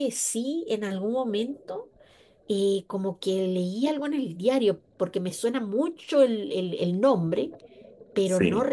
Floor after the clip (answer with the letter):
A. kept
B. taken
A